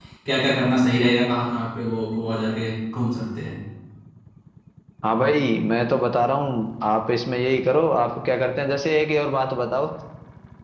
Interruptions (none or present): none